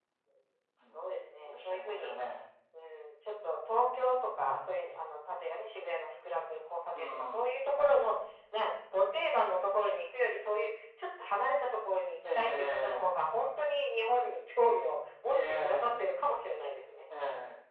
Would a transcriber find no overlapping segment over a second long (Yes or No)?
No